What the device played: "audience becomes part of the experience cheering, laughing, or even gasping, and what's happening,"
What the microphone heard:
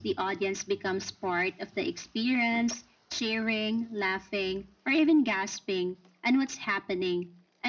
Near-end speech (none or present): none